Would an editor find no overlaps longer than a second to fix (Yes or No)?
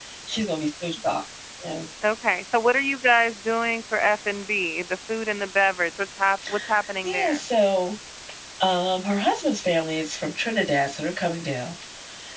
Yes